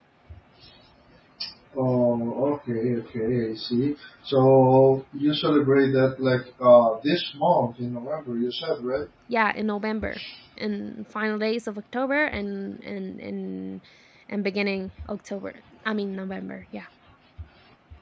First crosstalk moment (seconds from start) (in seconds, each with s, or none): none